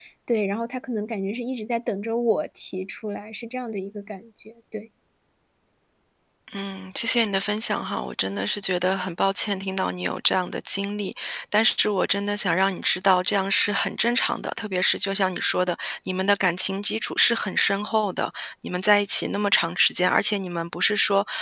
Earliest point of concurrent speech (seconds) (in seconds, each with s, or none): none